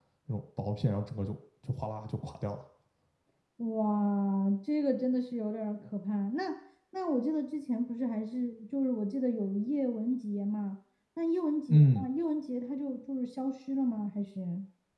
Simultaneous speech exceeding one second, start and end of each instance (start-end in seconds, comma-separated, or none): none